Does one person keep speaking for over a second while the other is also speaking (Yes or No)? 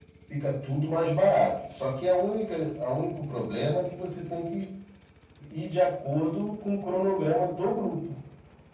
No